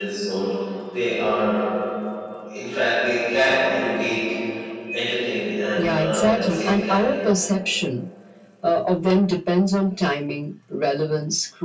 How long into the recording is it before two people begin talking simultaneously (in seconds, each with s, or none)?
5.8 s